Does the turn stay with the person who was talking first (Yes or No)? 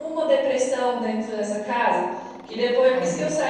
Yes